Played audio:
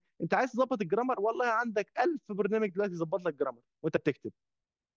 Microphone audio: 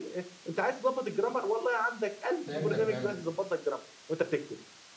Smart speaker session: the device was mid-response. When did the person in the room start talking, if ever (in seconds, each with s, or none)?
2.5 s